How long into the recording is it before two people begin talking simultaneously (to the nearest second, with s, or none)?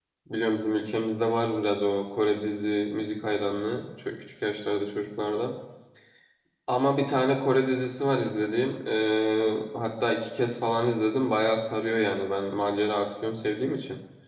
none